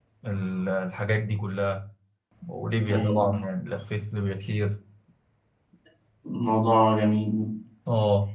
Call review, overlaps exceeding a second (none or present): none